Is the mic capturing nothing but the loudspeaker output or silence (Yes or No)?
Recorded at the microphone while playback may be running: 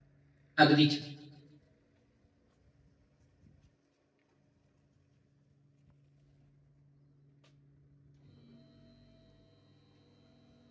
No